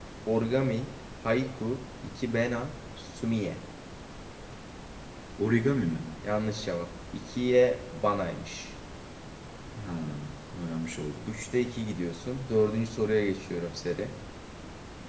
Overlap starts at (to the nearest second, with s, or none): none